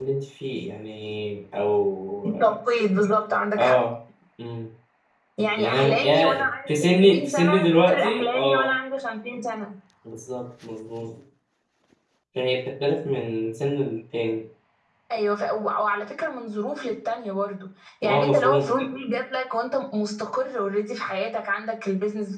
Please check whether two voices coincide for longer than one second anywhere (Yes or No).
Yes